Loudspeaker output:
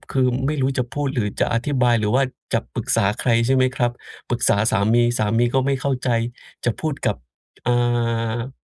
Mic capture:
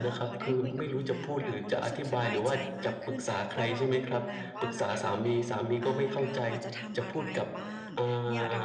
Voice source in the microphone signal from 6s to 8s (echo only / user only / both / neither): both